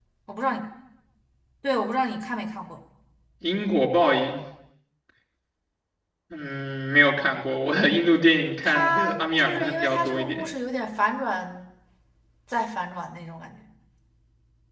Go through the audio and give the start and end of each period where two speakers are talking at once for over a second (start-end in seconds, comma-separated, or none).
8.6-10.4